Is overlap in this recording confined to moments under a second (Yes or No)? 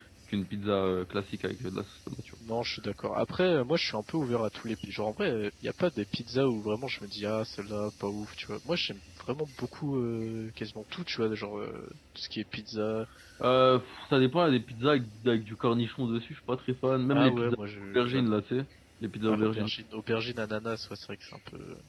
Yes